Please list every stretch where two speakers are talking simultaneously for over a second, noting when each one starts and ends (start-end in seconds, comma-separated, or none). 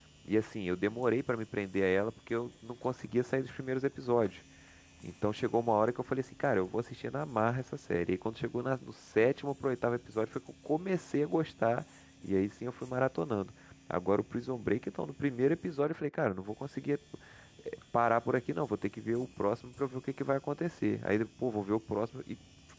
none